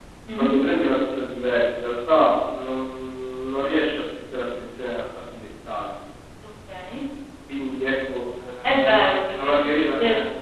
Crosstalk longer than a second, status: present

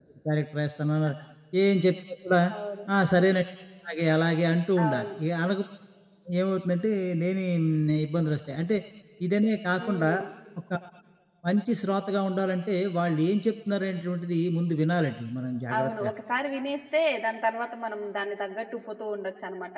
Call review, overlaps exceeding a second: none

